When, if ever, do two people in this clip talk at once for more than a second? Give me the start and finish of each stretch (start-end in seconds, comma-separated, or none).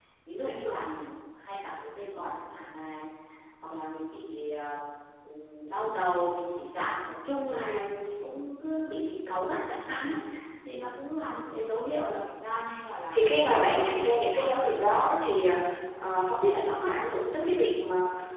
13.1-15.1